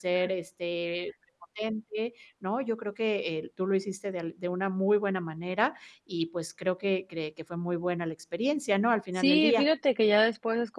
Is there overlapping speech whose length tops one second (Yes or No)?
No